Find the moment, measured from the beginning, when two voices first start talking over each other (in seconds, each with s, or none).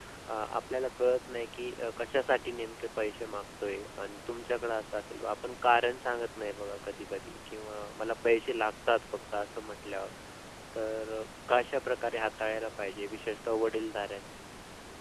none